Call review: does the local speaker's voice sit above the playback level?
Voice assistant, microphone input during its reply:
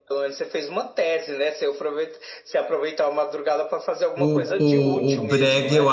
Yes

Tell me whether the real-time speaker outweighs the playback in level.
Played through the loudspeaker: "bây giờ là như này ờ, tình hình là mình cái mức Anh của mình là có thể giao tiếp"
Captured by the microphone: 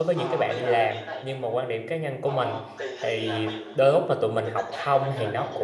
Yes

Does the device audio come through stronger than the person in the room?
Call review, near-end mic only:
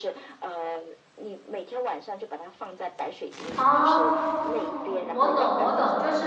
No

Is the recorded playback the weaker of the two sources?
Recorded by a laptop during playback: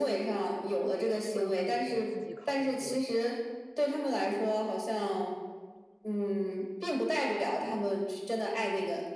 No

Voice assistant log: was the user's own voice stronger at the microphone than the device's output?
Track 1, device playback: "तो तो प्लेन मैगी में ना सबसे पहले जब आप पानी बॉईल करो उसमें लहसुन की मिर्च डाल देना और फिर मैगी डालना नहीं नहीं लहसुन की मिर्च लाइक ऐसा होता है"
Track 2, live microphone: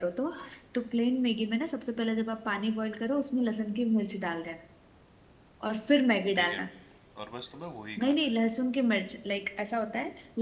No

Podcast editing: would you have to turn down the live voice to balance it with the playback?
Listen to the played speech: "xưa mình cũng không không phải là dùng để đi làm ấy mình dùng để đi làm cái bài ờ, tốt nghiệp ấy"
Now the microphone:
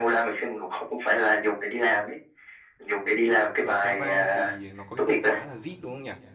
No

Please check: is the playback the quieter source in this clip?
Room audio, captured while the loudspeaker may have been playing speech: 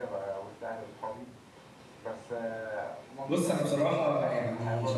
Yes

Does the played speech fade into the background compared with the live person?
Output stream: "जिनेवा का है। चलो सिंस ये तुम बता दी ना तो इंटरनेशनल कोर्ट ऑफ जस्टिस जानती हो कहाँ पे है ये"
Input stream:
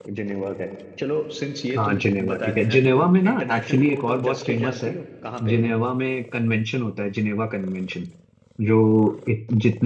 Yes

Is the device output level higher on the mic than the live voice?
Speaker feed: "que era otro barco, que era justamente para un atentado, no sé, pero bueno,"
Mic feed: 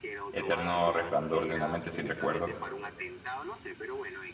No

